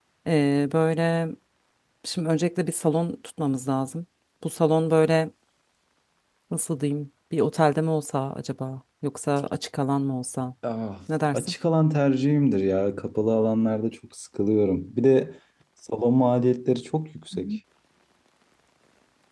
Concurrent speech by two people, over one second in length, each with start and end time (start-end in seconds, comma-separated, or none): none